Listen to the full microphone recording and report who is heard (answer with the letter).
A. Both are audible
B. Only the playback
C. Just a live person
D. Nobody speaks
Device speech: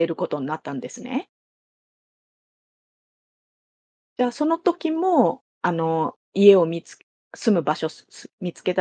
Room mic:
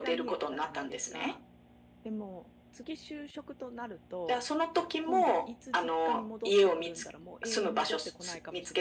A